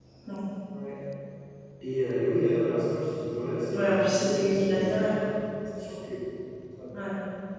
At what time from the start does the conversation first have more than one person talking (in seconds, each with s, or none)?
3.7 s